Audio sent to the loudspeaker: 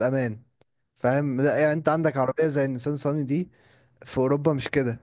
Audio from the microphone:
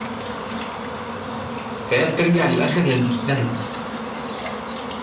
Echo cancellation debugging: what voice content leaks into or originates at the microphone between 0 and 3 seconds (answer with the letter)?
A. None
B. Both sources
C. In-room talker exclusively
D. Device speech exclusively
C